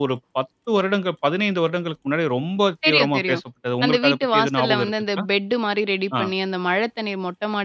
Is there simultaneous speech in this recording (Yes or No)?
Yes